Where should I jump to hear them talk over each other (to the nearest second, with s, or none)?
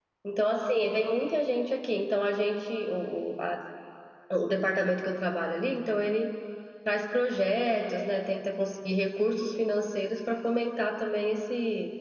none